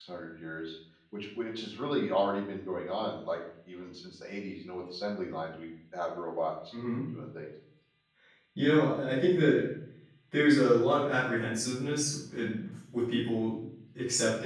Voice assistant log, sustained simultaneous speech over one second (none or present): none